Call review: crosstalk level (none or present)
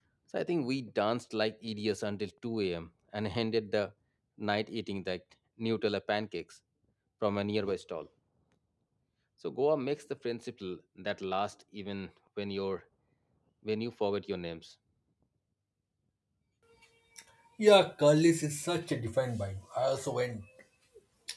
none